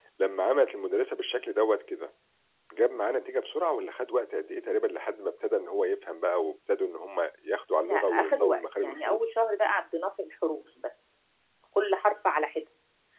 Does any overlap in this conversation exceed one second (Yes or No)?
Yes